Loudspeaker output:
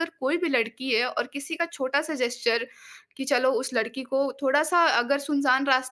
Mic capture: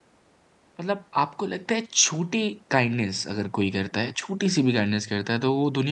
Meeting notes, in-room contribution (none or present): present